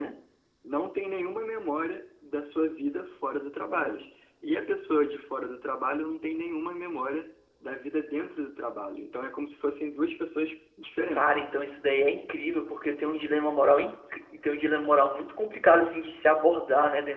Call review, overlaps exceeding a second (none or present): none